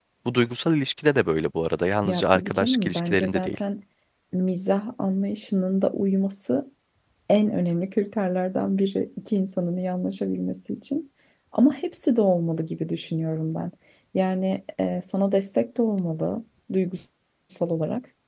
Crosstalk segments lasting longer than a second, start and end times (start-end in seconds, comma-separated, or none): 2.0-3.6